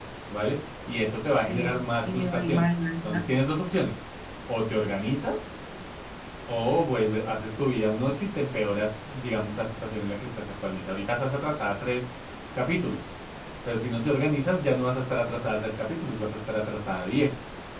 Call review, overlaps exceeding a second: present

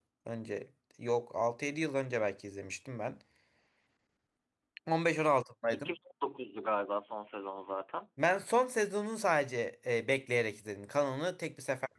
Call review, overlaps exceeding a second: none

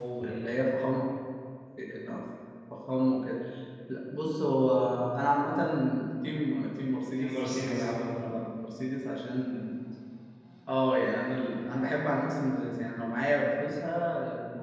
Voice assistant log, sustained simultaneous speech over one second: present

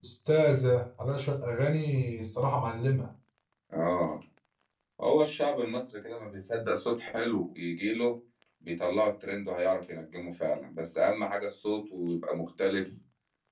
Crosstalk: none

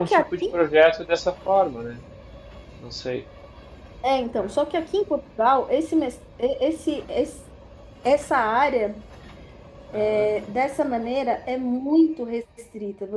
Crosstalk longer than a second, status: none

